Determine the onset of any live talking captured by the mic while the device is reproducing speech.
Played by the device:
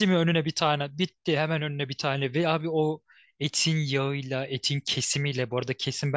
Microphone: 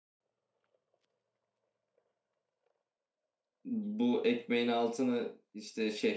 3.6 s

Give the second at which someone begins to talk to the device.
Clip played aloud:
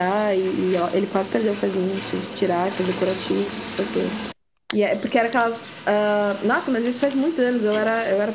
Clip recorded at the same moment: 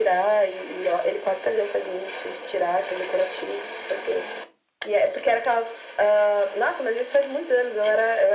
none

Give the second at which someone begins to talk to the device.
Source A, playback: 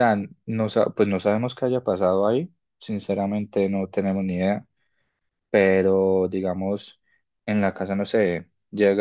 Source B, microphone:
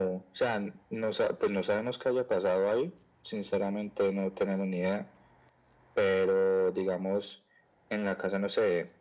none

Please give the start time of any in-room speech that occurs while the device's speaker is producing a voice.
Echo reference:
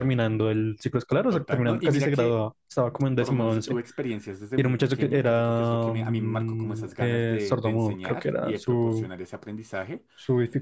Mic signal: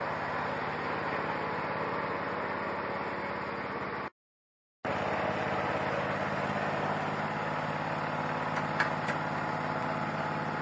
none

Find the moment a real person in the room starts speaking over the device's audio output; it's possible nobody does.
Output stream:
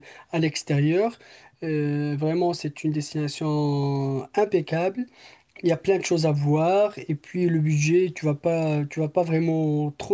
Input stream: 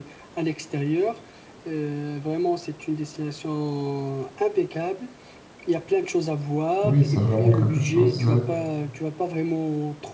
6.8 s

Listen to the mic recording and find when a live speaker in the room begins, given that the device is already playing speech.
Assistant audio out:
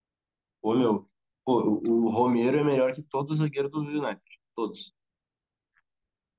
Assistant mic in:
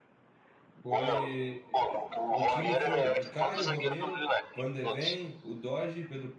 0.8 s

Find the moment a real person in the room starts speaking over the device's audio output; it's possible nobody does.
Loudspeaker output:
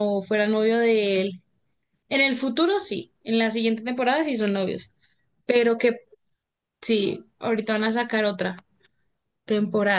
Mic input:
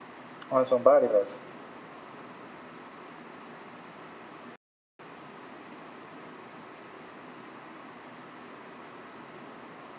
0.5 s

